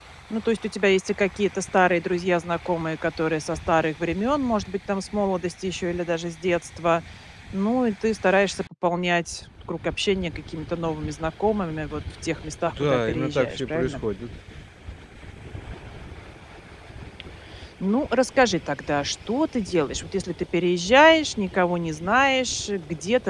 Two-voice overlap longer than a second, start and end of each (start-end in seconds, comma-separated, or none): 12.7-14.0